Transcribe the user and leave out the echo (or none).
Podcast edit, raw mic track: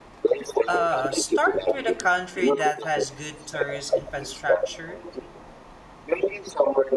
Uh, start with a country that has good tourist infrastructure